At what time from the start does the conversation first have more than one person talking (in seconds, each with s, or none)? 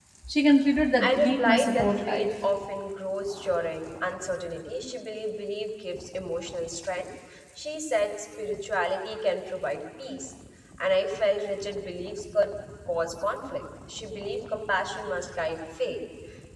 1.0 s